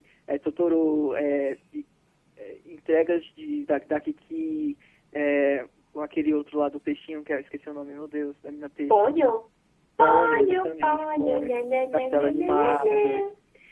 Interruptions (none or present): present